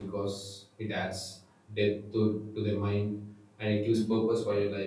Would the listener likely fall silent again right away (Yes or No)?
Yes